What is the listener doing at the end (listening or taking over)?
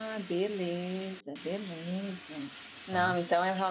listening